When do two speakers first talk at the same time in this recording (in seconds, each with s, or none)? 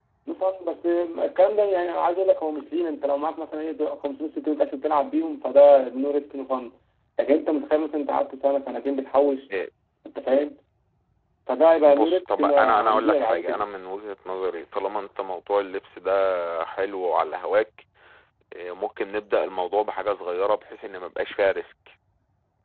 11.9 s